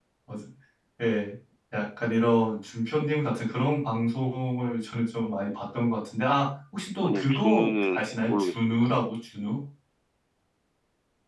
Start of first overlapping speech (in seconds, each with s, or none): 7.0 s